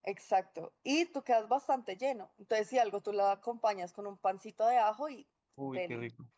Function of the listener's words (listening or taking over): taking over